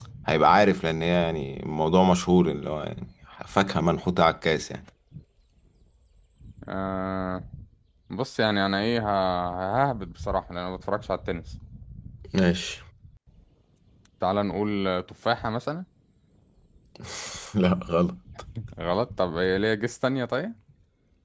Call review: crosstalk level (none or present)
none